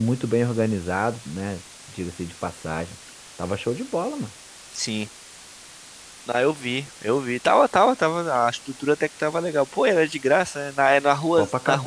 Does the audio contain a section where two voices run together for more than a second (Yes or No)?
No